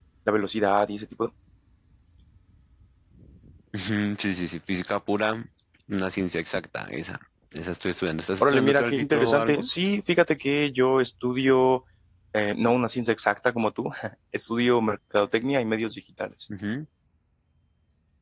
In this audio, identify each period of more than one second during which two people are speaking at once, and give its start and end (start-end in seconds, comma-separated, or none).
8.4-9.7